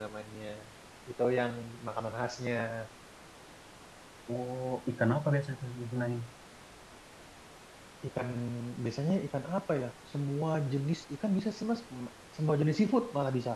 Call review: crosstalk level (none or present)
none